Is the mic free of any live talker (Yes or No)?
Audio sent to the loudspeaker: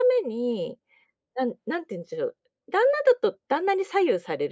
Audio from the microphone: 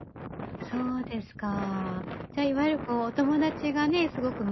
No